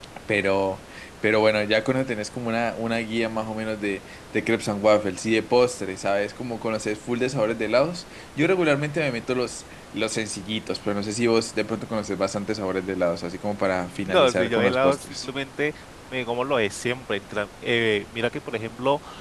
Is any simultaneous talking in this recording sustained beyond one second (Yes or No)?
Yes